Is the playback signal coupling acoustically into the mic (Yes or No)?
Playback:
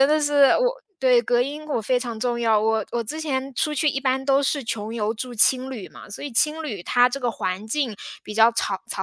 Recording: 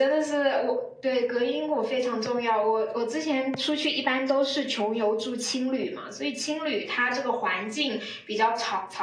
Yes